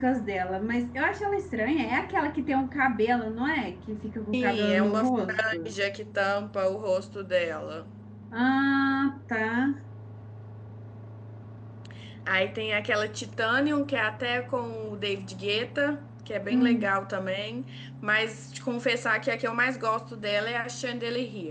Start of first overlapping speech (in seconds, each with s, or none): 4.3 s